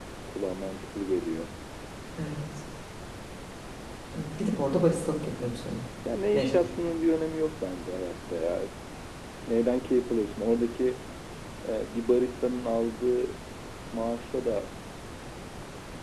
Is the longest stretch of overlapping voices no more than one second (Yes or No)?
Yes